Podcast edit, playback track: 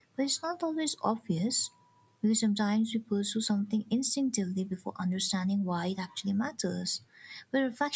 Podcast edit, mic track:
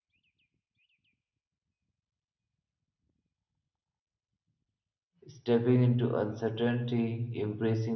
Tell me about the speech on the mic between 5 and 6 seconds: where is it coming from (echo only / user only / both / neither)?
user only